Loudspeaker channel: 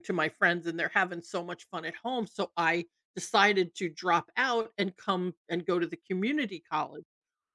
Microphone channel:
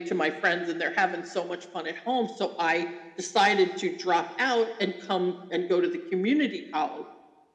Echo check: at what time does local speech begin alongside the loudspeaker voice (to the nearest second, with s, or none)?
none